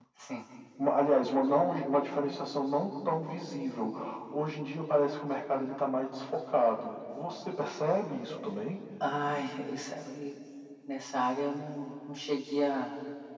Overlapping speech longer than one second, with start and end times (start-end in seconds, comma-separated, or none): none